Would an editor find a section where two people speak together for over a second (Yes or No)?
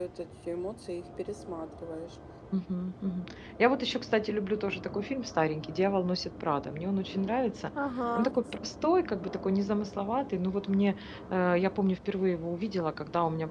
No